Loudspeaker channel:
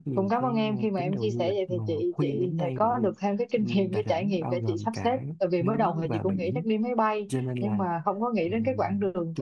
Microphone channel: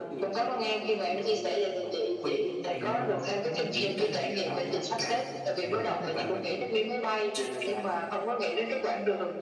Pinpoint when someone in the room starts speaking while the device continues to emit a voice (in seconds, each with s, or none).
2.7 s